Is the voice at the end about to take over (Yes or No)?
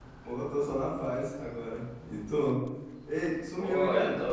Yes